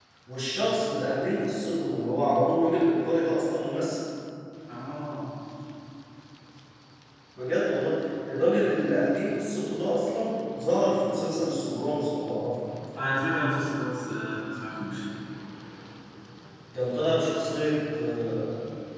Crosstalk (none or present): none